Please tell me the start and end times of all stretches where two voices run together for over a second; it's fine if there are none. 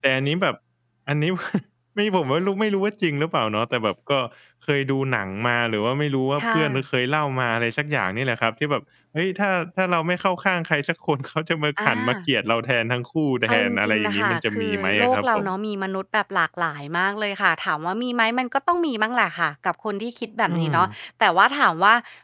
13.5-15.5

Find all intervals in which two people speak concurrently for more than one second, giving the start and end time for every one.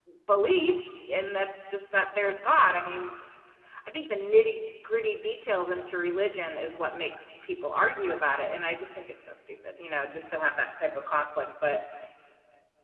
none

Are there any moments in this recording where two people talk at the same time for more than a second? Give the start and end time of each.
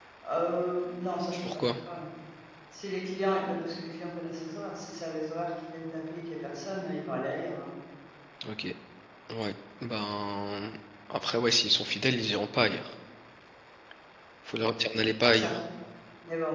none

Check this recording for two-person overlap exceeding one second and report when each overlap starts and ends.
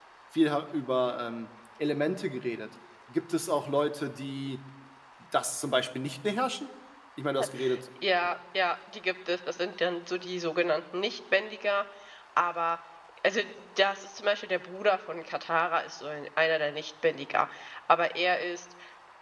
none

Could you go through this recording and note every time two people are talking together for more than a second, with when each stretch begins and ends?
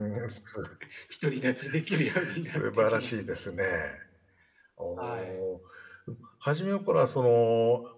1.8-3.2

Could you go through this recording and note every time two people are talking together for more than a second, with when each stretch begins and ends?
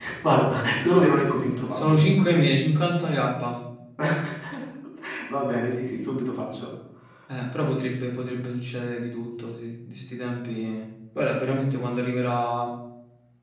none

